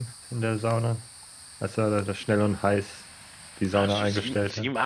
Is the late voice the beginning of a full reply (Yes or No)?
Yes